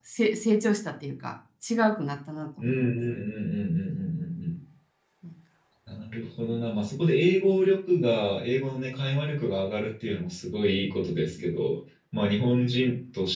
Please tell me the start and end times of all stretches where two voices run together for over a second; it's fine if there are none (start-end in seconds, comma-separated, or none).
none